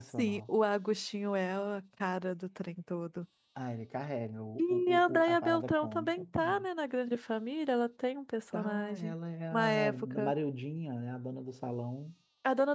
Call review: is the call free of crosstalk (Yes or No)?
No